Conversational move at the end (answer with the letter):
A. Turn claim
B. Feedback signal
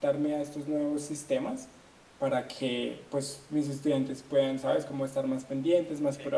B